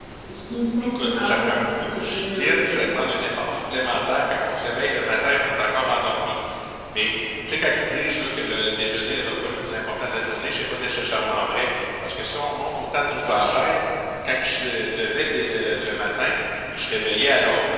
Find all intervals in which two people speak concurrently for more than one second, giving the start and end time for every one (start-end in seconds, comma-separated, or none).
0.8-2.6